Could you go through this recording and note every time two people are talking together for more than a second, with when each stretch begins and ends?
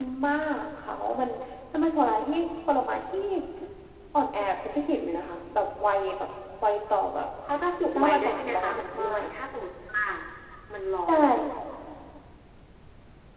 8.0-9.3

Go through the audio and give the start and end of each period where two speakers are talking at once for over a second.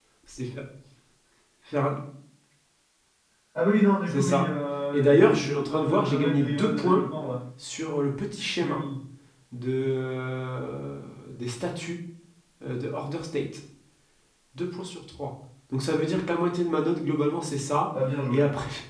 4.9-7.0

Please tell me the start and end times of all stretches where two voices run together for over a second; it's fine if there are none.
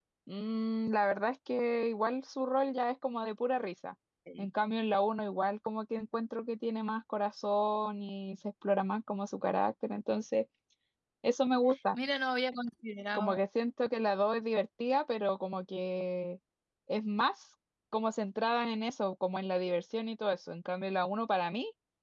none

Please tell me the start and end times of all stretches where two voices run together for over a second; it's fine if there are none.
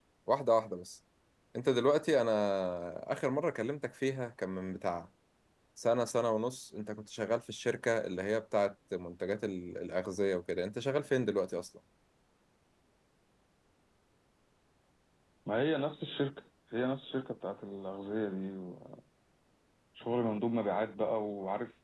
none

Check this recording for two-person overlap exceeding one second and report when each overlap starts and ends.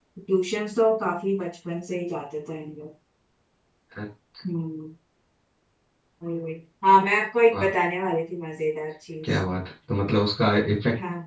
none

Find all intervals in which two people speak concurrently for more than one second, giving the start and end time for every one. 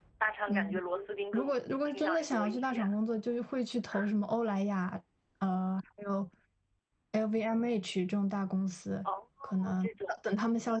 1.3-2.9

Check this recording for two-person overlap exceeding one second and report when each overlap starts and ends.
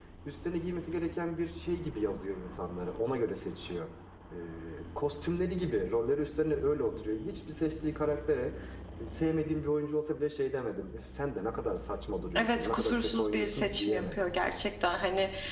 12.3-14.3

